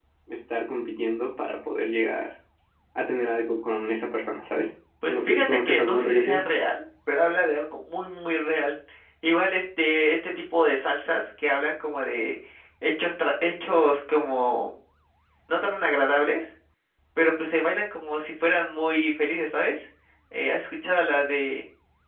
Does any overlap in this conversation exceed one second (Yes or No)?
Yes